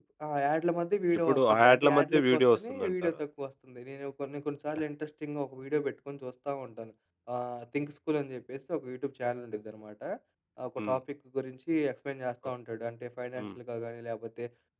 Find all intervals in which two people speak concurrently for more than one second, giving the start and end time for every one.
1.3-3.2

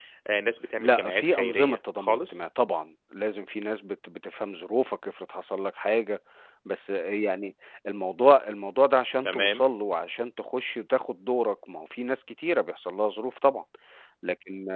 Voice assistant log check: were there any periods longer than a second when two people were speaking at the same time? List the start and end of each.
0.8-2.4

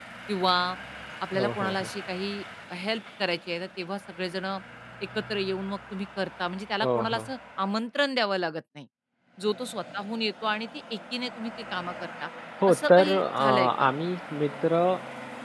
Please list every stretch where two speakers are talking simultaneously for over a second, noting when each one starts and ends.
12.7-13.9

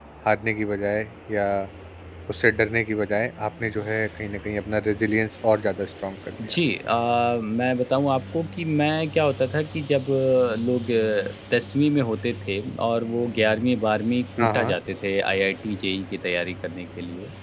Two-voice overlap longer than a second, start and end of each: none

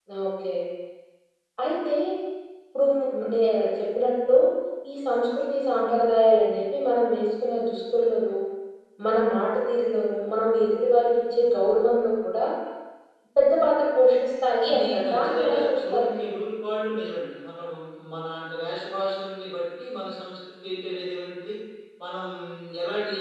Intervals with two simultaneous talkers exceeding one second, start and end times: 14.7-16.3

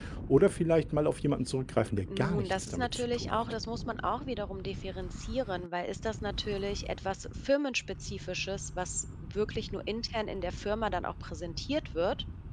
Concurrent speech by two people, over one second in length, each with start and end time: 2.1-3.5

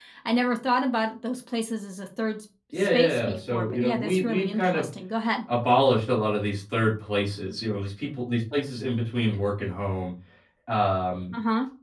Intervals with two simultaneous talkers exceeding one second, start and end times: 2.8-4.9

